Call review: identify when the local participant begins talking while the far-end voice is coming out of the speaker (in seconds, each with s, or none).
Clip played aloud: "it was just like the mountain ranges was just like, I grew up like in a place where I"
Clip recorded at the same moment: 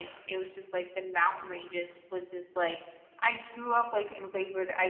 none